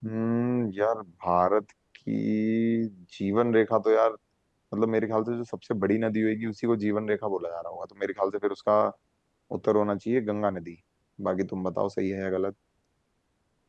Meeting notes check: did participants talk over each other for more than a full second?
No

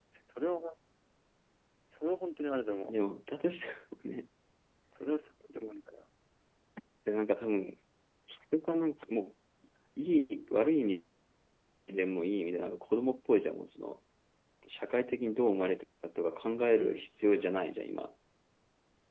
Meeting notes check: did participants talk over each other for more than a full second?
No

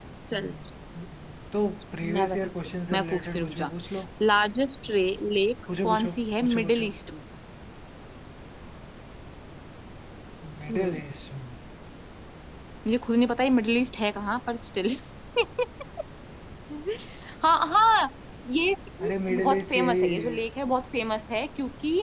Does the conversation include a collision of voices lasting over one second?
Yes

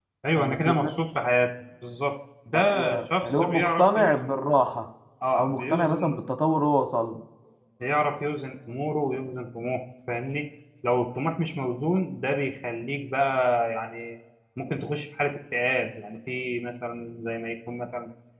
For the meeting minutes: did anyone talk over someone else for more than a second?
Yes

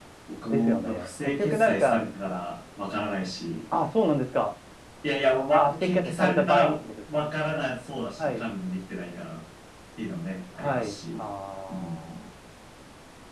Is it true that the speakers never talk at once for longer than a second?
No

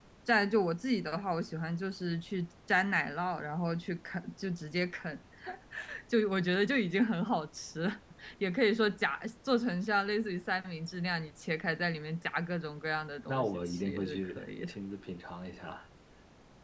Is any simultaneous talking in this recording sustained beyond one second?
Yes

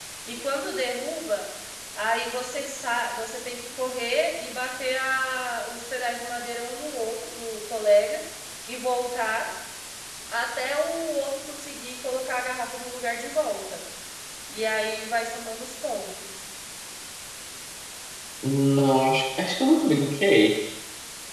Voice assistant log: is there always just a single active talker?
Yes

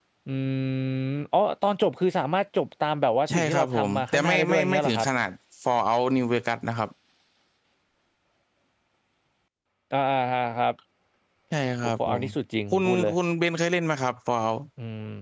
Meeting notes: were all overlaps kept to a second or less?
No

